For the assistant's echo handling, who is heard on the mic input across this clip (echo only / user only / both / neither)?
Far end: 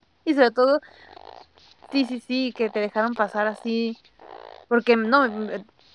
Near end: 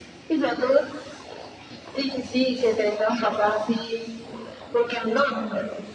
echo only